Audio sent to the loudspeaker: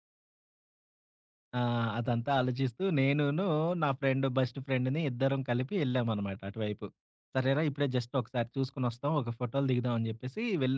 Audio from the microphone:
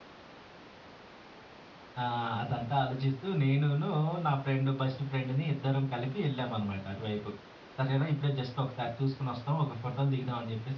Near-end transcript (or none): none